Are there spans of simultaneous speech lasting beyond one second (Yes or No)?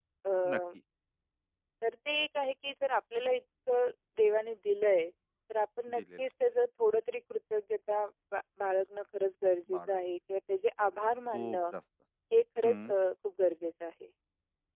No